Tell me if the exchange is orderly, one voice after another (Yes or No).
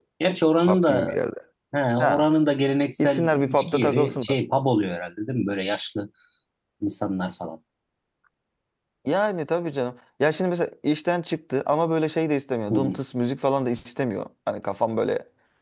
No